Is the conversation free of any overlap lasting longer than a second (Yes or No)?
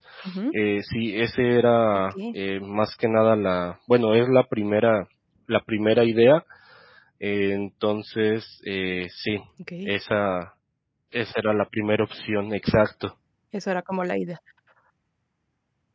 Yes